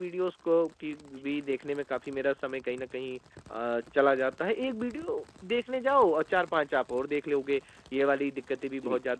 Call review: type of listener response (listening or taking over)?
listening